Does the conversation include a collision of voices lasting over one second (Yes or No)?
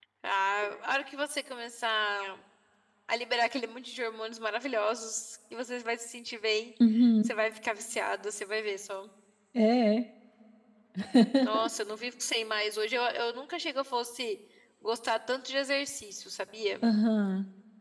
No